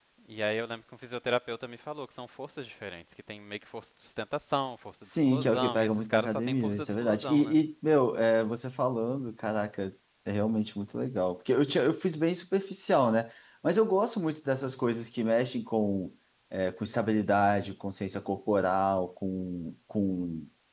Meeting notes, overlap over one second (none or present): present